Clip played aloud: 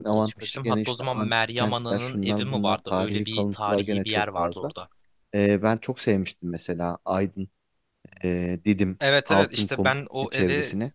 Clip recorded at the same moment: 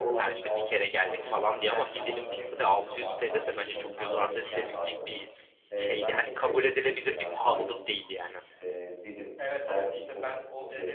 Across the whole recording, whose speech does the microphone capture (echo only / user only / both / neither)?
both